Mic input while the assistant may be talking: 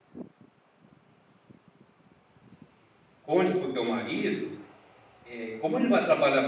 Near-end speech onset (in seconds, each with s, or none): 3.2 s